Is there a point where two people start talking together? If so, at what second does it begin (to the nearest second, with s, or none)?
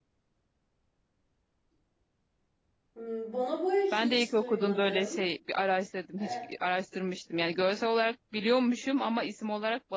4 s